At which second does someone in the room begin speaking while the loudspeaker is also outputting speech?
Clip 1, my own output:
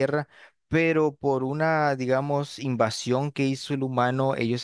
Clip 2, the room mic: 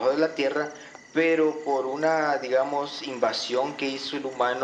none

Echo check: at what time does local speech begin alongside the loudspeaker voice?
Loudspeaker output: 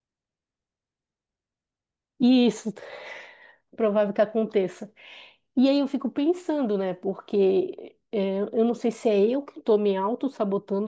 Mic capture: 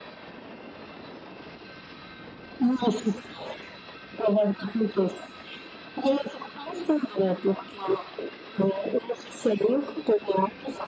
none

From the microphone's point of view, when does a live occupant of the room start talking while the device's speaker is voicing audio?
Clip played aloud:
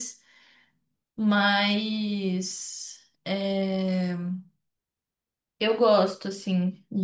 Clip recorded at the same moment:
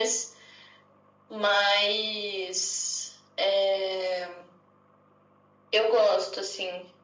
none

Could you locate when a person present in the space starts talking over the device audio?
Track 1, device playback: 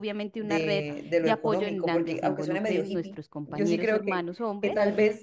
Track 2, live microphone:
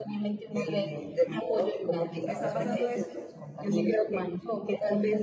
2.2 s

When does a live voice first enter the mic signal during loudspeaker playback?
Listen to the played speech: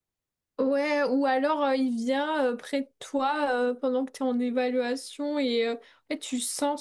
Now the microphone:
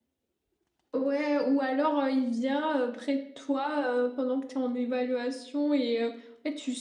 none

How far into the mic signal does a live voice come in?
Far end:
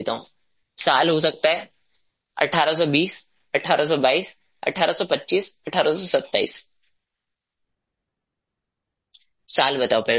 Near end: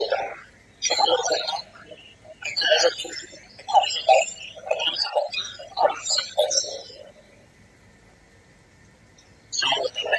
none

